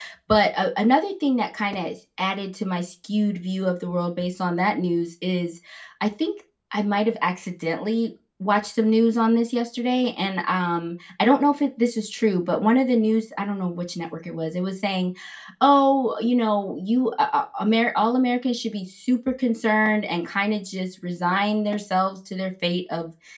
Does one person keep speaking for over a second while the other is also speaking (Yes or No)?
No